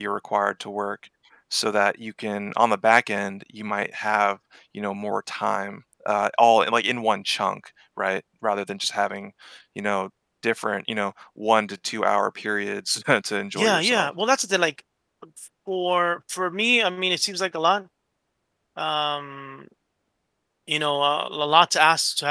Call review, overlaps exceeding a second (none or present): none